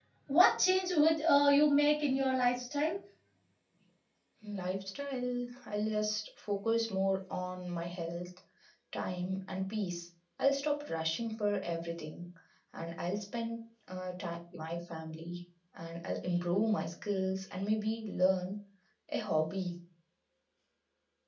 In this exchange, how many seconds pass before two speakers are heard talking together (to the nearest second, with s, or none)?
none